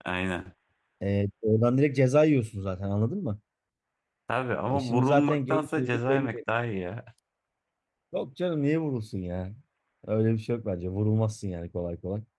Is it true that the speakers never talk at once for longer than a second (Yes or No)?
No